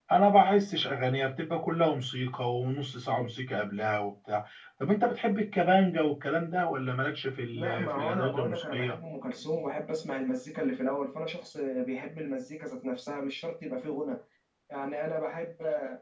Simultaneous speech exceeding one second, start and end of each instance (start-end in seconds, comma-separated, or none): 7.5-9.0